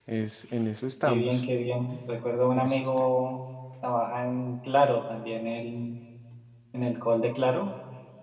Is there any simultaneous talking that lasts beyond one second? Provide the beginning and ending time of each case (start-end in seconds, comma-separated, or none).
none